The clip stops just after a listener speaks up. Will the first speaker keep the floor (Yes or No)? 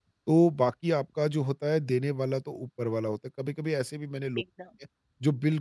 Yes